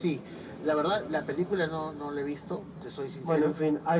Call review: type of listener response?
taking over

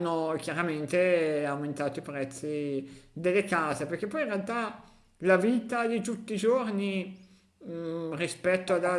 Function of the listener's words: listening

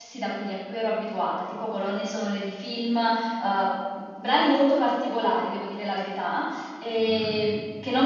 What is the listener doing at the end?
listening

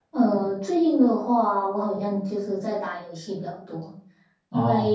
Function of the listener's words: listening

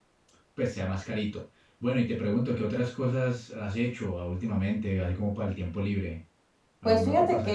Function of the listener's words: taking over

